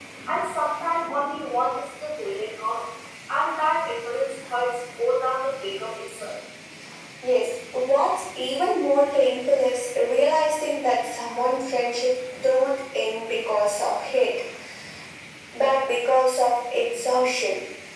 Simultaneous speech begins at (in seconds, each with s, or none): none